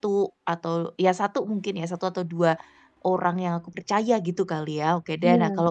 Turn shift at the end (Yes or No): No